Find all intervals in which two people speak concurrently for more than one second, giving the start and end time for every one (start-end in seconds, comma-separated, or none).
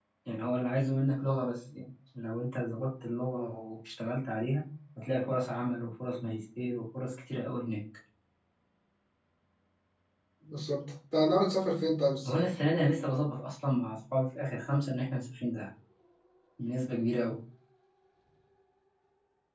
none